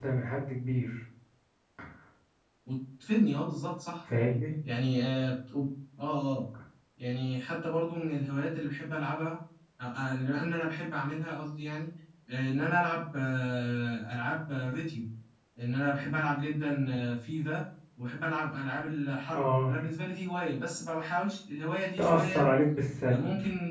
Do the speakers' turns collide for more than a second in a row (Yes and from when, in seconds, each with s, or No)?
No